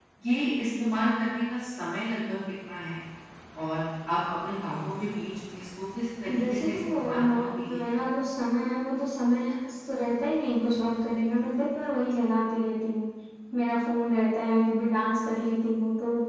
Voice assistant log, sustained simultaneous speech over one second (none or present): present